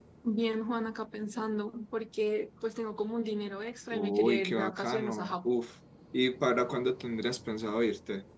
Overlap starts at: 4 s

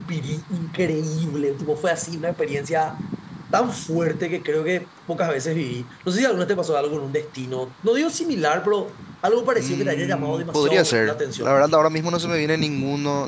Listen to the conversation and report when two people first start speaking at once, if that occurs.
10 s

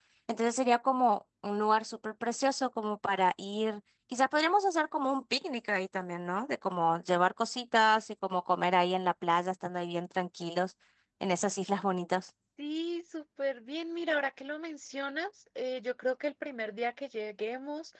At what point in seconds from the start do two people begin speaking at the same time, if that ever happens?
none

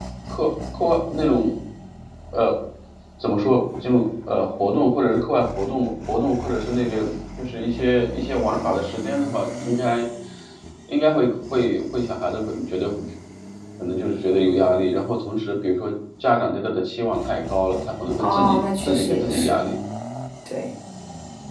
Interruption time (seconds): 18 s

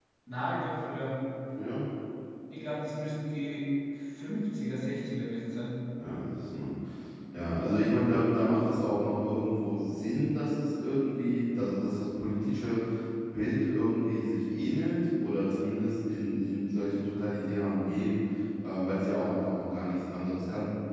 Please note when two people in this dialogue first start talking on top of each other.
none

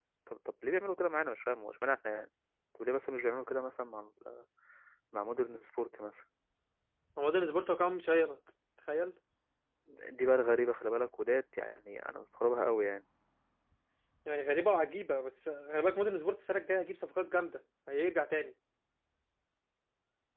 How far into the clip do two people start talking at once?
none

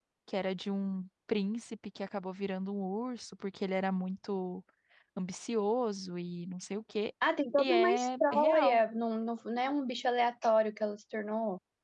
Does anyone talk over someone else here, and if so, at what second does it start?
8 s

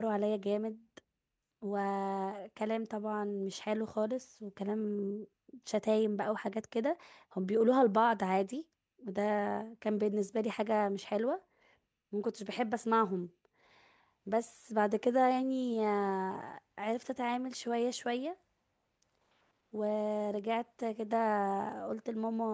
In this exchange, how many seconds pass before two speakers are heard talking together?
none

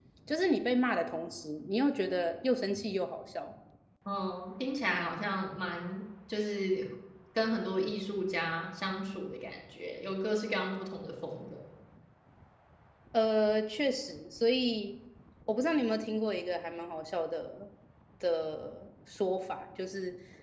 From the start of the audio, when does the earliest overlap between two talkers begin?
none

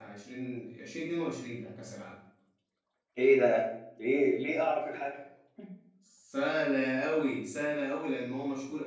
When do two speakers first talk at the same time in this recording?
none

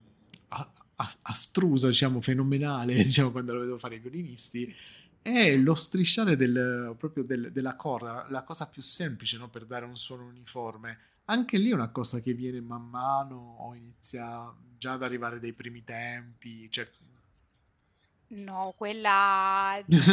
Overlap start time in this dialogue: none

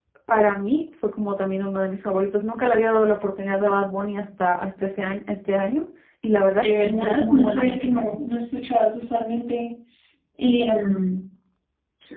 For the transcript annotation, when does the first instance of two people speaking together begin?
7 s

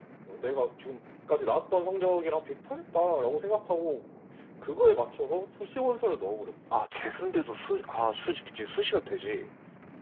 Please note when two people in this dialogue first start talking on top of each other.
none

